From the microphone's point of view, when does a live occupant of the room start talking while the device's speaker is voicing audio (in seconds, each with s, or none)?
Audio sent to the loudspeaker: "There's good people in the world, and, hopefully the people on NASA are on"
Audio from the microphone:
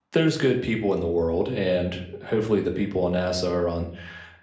none